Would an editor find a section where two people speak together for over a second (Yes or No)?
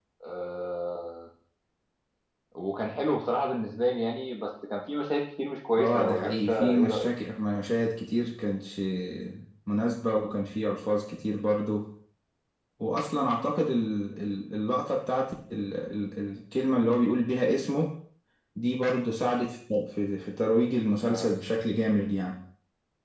Yes